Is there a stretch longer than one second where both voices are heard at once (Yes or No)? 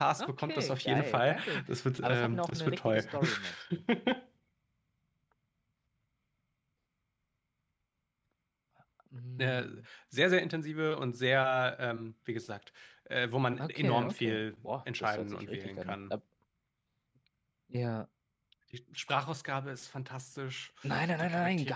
Yes